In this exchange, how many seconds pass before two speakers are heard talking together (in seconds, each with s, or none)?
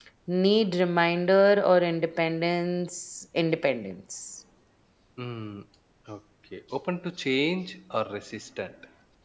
none